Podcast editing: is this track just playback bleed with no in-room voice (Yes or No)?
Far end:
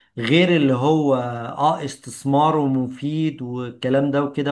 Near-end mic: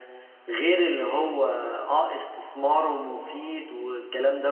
Yes